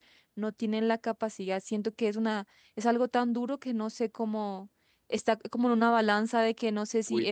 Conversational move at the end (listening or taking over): taking over